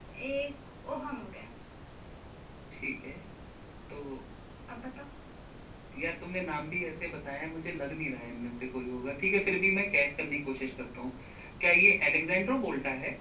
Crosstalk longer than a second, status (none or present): none